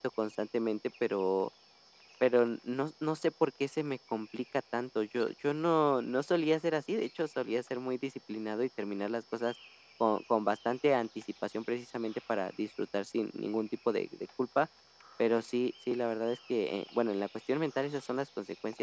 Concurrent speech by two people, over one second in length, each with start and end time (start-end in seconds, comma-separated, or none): none